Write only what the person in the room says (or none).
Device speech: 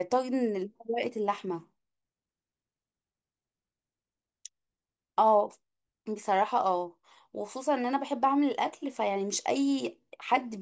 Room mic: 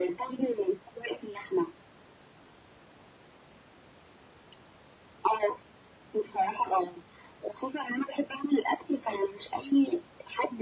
none